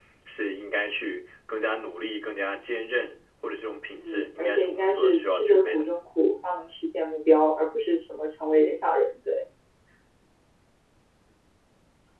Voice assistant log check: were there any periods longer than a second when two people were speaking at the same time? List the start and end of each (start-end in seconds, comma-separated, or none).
4.0-5.8